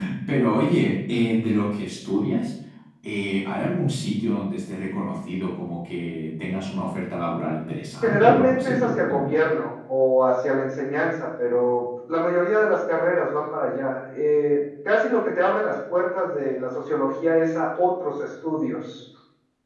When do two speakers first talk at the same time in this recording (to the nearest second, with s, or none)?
8 s